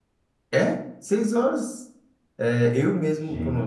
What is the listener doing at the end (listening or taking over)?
listening